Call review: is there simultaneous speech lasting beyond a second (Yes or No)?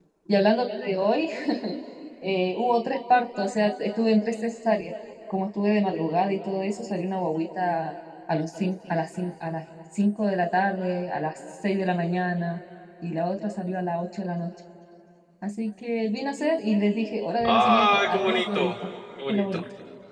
Yes